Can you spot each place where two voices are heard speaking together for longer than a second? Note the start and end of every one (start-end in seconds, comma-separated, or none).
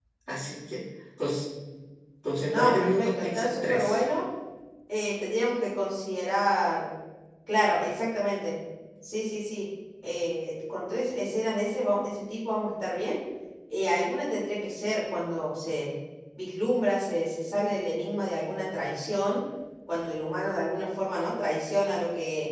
2.5-4.0